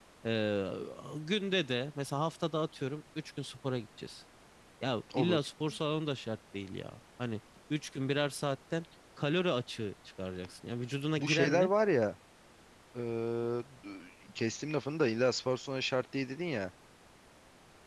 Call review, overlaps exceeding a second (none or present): none